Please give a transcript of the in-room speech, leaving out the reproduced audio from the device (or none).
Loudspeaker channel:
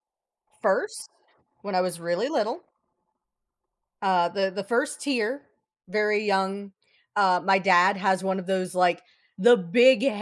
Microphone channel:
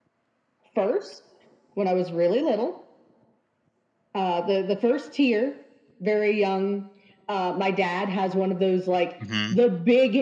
Mhm.